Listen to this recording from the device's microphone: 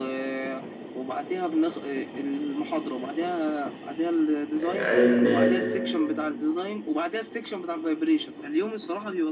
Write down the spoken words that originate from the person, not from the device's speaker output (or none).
آه، قال ان